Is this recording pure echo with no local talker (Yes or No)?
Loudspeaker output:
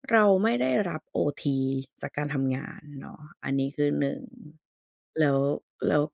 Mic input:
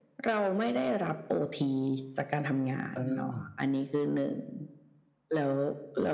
No